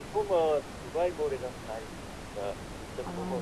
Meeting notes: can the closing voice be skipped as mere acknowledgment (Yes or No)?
Yes